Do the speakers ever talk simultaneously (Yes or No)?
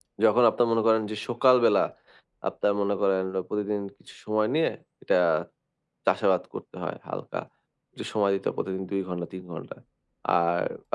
No